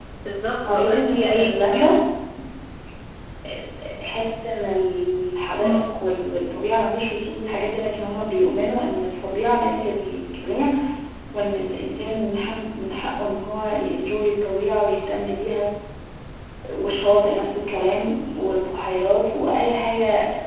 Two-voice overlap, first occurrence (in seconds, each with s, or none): 0.7 s